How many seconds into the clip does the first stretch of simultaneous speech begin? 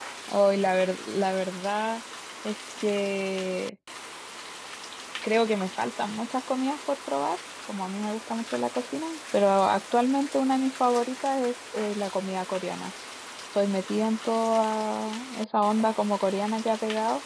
none

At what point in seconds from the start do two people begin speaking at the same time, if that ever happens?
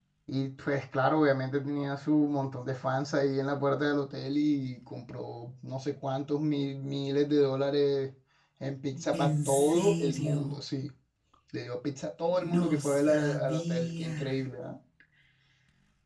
9 s

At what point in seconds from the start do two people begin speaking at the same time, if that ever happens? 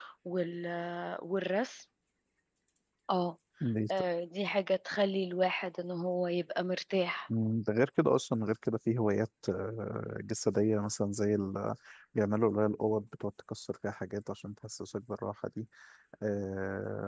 none

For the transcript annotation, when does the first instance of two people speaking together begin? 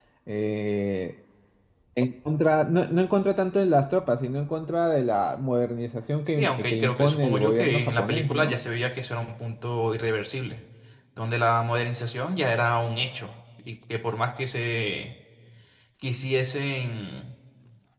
6 s

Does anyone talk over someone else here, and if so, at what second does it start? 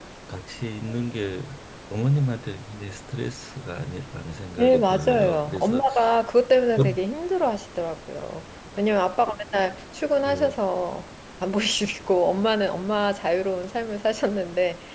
5 s

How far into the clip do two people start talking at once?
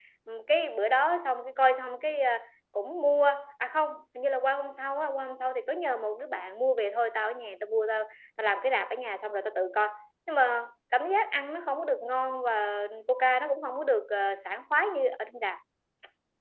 none

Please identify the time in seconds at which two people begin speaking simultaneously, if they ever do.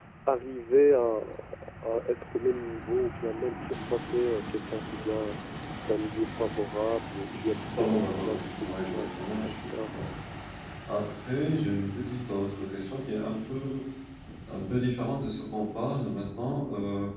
7 s

